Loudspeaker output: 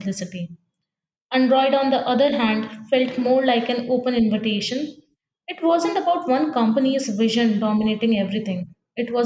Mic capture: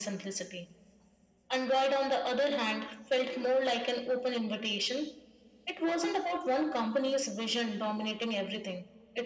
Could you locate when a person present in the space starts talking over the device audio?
none

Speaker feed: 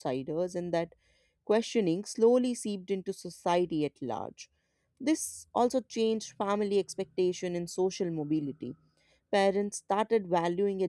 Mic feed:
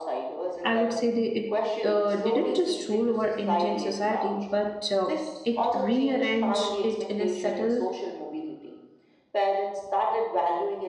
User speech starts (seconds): 0.6 s

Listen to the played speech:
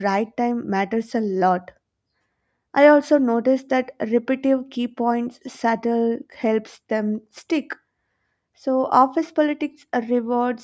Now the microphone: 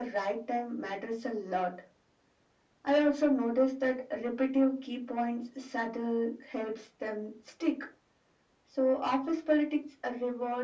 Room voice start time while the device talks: none

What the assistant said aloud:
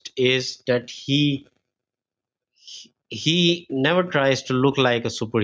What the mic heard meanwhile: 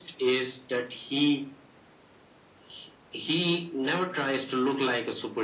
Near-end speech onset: none

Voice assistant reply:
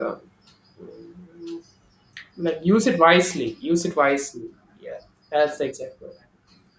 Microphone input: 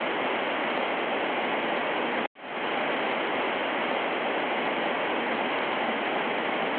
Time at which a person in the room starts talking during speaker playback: none

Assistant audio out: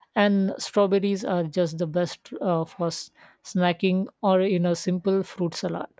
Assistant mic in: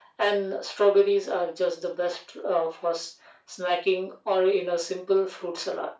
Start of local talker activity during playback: none

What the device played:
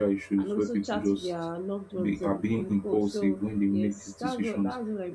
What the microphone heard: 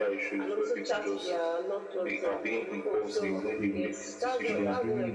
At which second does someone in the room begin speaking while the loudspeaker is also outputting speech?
3.2 s

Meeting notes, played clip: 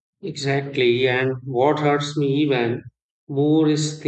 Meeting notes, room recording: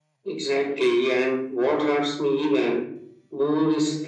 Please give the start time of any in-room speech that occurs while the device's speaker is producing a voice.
none

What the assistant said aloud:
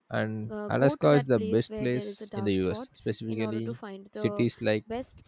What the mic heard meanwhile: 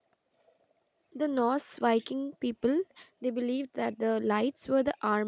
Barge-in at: 1.1 s

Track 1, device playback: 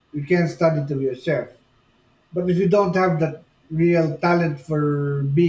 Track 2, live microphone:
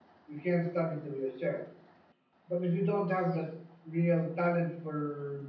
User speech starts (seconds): none

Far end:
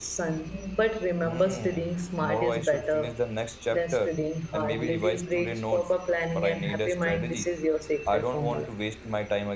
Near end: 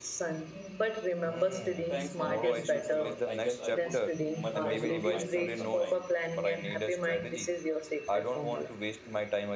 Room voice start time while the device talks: 1.9 s

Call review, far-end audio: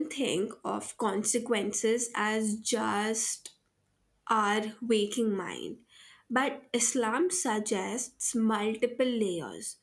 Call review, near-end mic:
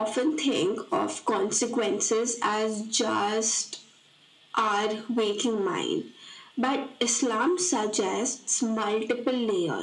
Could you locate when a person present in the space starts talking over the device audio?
none

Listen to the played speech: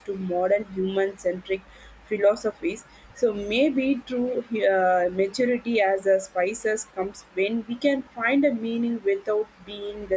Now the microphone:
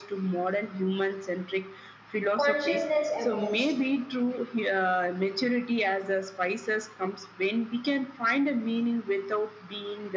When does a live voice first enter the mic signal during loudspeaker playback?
2.4 s

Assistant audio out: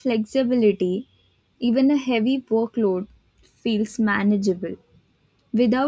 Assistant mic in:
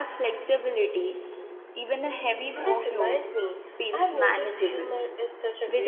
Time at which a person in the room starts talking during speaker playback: 2.5 s

